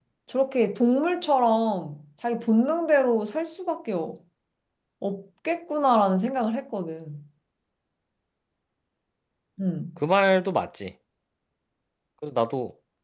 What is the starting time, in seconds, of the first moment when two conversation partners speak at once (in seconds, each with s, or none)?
none